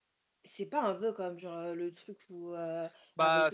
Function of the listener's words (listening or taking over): listening